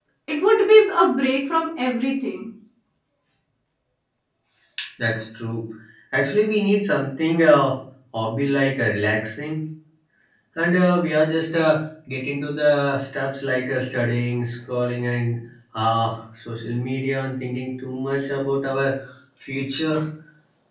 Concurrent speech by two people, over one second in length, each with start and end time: none

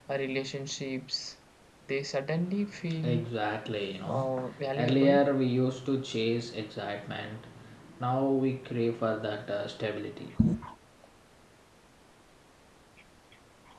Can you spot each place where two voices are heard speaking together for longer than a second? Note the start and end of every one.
none

